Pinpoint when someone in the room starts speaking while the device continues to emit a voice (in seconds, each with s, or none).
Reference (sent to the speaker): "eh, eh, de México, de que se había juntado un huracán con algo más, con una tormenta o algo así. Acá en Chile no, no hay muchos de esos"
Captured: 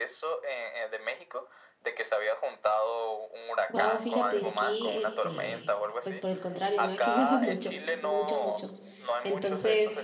3.7 s